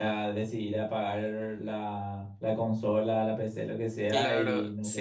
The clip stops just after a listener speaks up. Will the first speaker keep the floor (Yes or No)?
No